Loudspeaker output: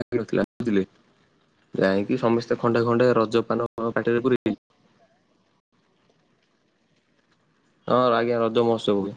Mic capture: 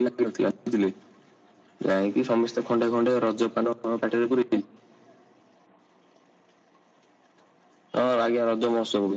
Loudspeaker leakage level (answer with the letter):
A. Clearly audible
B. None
A